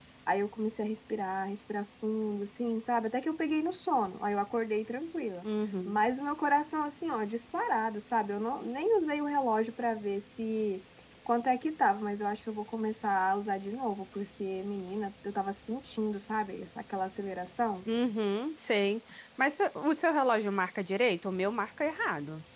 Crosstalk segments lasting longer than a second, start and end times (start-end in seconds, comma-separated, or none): none